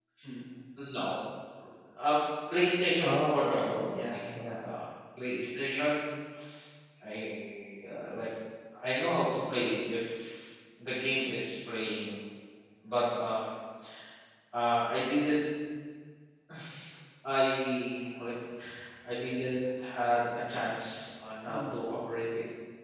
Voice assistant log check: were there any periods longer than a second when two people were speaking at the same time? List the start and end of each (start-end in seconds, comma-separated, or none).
3.0-4.5